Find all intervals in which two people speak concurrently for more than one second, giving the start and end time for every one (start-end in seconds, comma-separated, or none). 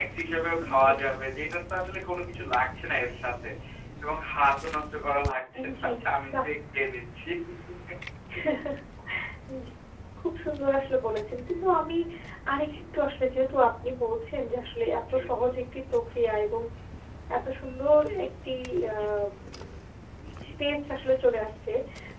none